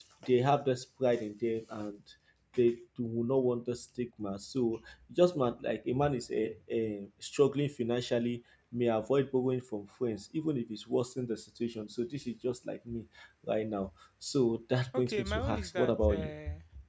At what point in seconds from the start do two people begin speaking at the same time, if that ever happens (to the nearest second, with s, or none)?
15 s